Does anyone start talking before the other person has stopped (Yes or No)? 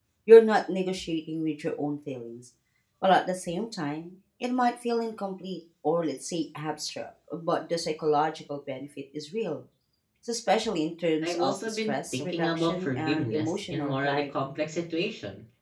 Yes